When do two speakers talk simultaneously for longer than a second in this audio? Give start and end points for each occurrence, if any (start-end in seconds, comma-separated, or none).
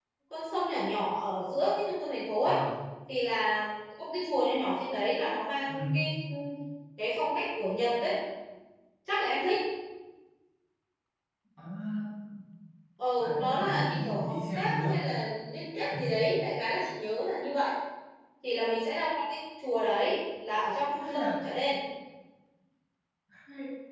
13.2-14.9